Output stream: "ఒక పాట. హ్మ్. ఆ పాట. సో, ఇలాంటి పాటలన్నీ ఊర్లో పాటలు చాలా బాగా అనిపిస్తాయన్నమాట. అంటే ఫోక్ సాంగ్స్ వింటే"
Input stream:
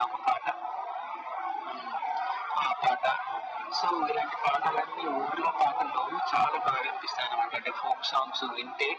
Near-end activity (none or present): none